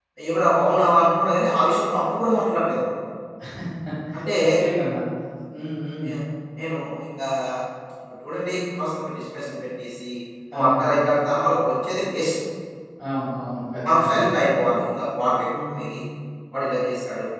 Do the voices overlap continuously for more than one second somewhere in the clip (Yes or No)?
No